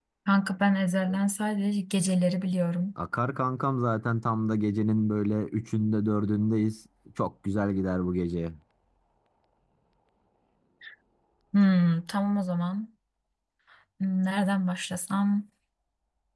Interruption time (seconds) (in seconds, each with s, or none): none